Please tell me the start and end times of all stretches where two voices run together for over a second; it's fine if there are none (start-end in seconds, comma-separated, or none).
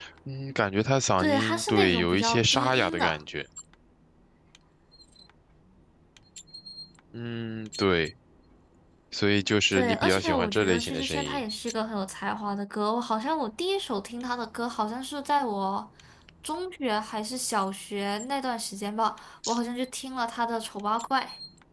1.2-3.2, 9.7-11.4